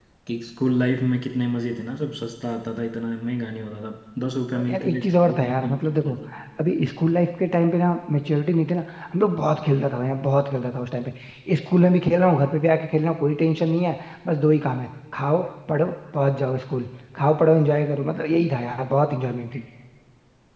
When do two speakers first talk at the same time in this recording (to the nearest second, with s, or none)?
5 s